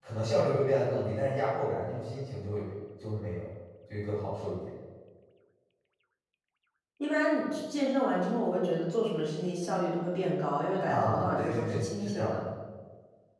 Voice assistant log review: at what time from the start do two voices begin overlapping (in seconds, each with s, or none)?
10.9 s